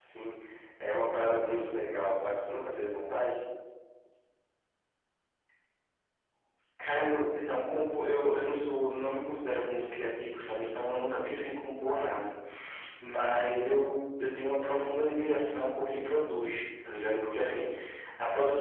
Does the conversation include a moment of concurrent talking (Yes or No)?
No